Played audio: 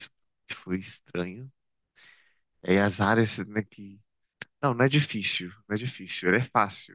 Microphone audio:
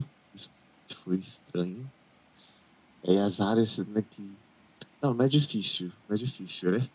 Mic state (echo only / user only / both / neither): echo only